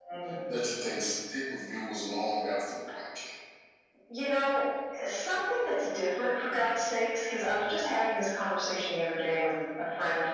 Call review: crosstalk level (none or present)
none